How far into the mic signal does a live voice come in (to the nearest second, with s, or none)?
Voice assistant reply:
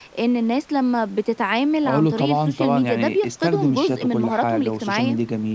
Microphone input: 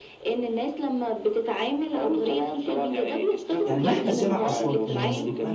4 s